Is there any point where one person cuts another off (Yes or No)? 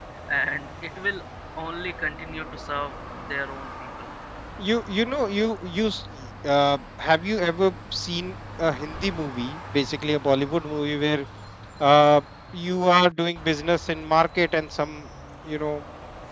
No